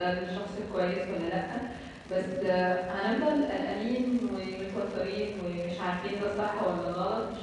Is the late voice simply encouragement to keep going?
Yes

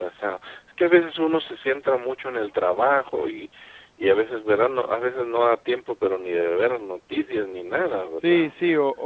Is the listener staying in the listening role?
No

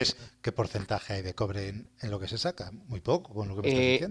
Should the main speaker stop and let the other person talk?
Yes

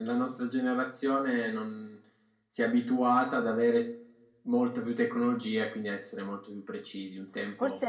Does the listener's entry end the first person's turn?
Yes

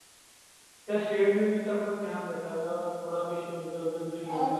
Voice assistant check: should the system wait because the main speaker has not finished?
No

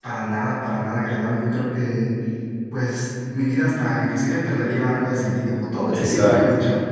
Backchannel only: No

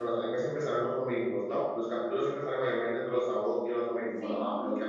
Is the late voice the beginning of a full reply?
No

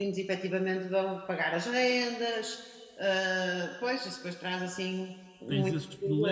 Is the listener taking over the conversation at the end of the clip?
Yes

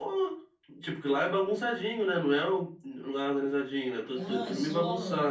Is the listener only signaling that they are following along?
No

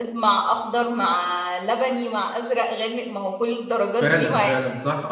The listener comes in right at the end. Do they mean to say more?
Yes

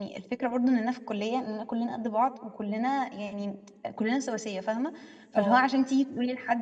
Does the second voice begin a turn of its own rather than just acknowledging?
No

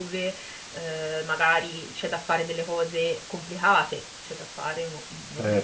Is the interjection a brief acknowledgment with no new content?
Yes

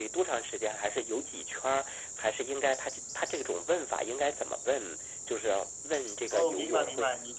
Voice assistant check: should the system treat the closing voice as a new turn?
Yes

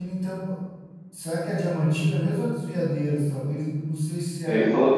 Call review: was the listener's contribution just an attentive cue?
No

